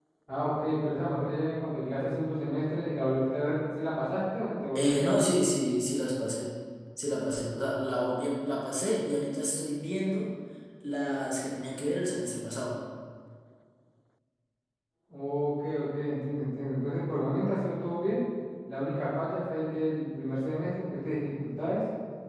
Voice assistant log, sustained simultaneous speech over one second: none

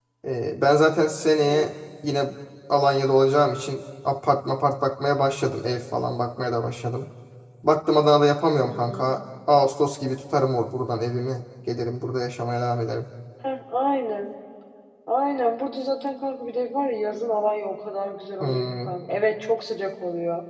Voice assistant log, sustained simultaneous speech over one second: none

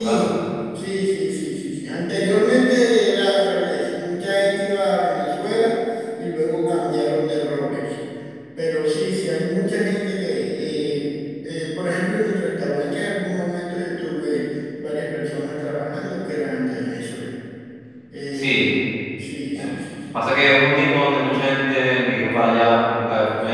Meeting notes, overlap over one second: none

